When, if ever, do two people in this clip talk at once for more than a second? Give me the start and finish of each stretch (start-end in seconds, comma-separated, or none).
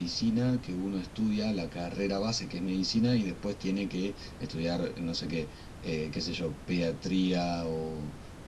none